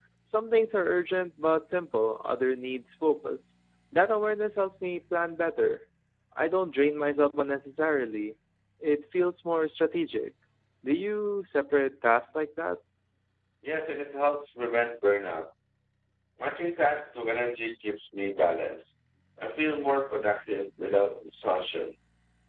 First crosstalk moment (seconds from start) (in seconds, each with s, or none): none